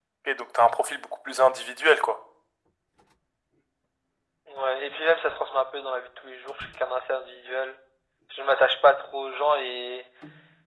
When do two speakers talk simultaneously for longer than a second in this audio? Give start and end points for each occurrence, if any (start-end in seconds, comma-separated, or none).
none